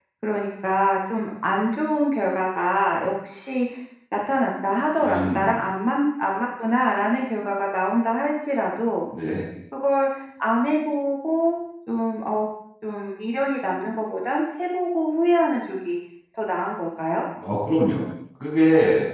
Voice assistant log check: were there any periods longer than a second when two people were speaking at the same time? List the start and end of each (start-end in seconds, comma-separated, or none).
none